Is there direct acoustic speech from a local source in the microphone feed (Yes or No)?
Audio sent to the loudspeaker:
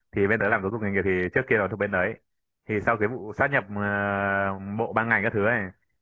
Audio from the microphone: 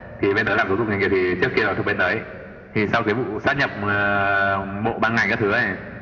No